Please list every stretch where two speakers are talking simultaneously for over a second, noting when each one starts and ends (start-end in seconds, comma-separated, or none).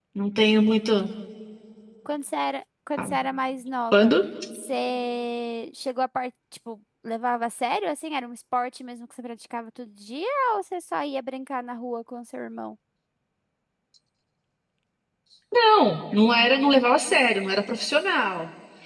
none